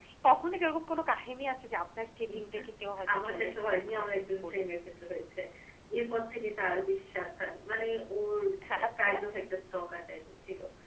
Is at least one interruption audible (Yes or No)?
Yes